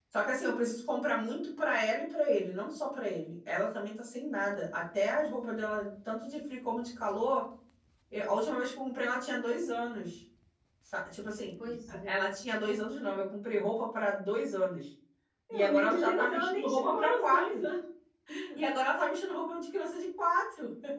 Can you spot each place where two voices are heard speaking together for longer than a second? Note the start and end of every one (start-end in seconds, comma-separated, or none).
15.5-17.6